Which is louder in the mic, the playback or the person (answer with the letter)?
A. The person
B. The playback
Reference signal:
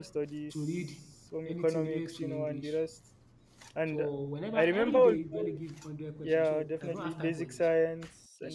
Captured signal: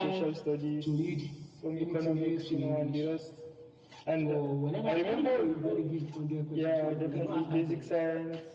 B